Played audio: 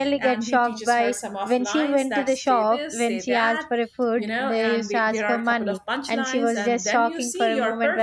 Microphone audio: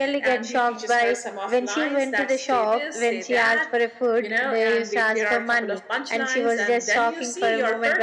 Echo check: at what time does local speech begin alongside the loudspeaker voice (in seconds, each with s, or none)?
none